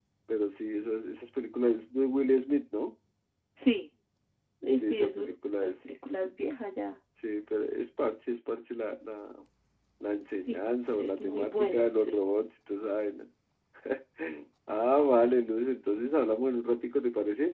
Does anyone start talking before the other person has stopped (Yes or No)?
Yes